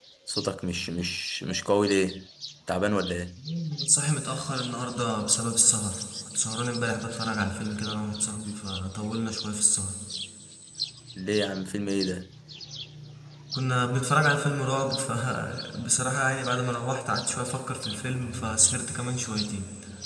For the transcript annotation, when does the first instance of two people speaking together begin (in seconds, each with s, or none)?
none